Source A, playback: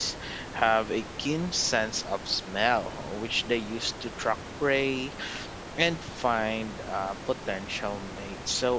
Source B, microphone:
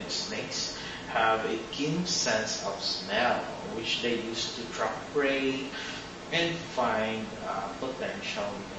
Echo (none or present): present